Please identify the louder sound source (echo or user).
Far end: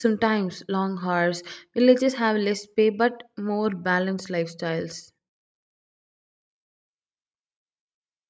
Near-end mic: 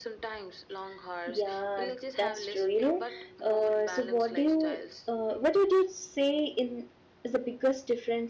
user